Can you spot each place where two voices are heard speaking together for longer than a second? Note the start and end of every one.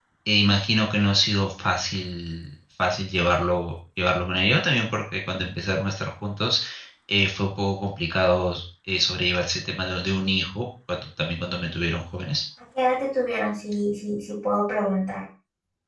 none

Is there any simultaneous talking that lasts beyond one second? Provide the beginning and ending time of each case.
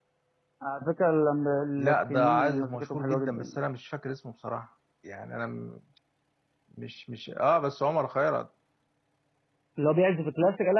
1.8-3.6

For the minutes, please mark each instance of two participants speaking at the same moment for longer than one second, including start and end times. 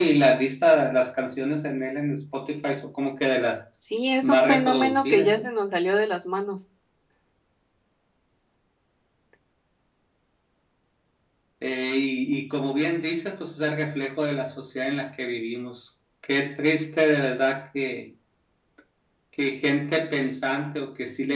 4.2-5.4

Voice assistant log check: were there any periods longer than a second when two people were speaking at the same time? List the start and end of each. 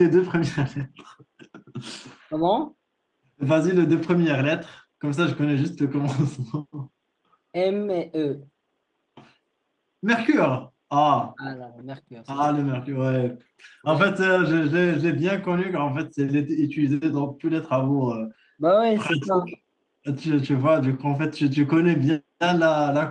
none

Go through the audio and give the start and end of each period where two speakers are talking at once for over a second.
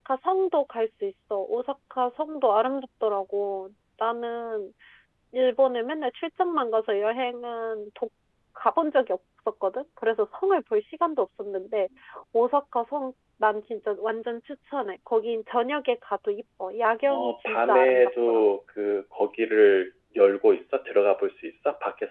17.1-18.4

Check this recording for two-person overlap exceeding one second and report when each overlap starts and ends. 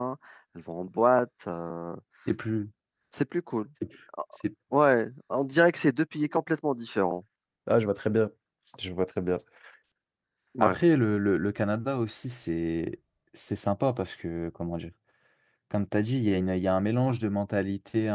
none

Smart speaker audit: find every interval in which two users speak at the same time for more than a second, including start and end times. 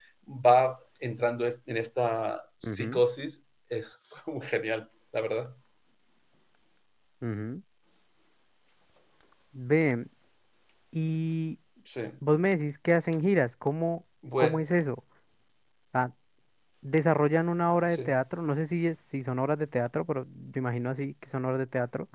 none

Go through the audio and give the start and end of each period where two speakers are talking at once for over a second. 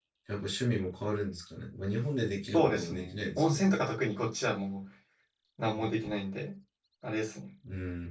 2.5-3.8

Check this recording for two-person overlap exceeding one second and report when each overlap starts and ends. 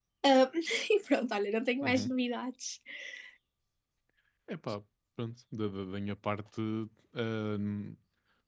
none

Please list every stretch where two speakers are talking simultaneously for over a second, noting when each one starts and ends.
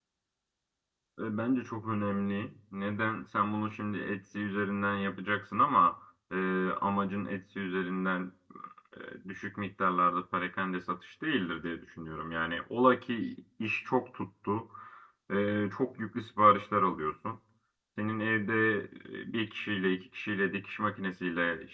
none

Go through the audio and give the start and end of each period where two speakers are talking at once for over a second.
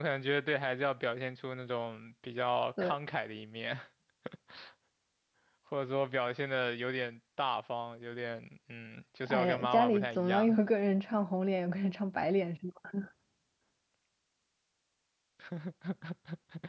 9.3-10.6

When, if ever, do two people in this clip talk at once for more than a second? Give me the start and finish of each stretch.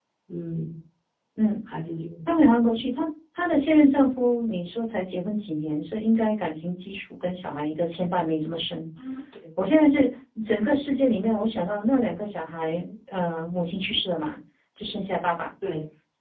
none

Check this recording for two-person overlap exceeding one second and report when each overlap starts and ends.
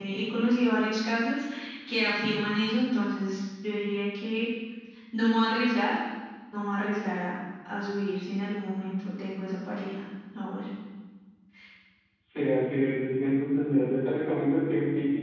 none

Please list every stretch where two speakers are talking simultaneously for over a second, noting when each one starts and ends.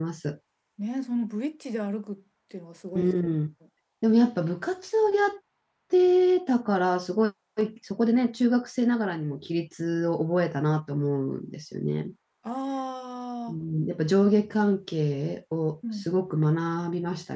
none

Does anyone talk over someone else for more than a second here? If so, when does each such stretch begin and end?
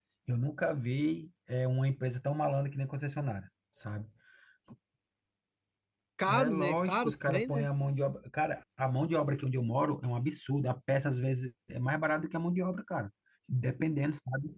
6.3-7.7

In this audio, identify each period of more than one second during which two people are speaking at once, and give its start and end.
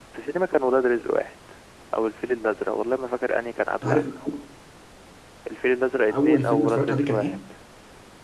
6.1-7.4

